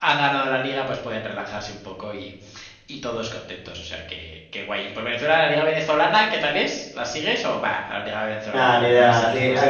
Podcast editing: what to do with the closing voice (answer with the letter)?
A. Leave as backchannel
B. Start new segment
B